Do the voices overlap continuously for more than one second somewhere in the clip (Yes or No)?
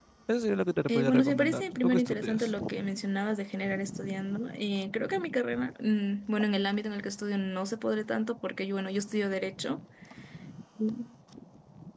Yes